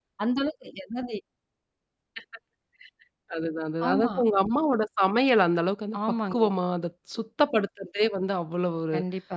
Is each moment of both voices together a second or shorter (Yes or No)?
Yes